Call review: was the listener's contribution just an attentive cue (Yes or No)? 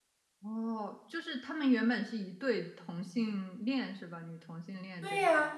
No